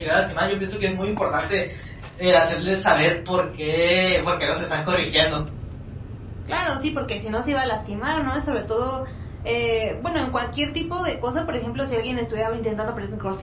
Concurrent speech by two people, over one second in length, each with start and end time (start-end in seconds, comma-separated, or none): none